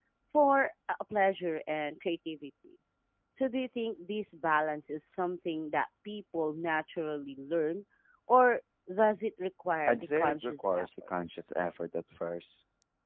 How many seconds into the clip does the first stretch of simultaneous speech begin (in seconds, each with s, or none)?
9.8 s